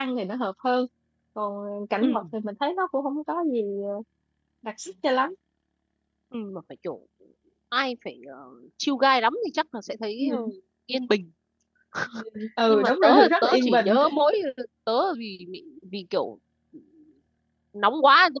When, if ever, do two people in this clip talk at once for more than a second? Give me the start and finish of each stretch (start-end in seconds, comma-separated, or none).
12.7-13.9